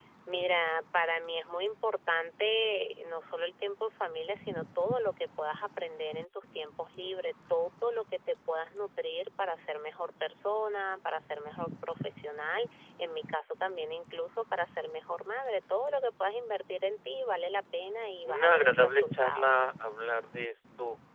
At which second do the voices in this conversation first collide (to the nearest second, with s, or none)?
18 s